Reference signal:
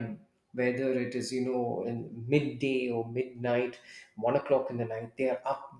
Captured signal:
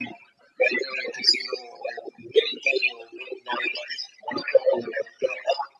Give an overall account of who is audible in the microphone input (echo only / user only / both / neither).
echo only